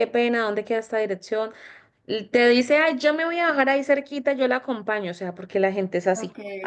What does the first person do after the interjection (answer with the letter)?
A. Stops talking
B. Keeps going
B